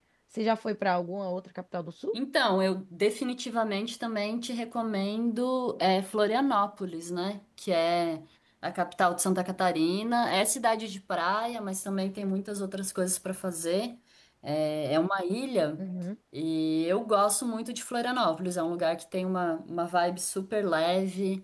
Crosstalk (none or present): none